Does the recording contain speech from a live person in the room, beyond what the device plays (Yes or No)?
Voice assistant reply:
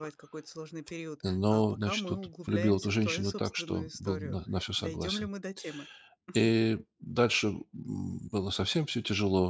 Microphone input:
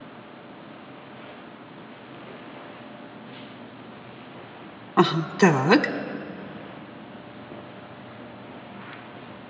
Yes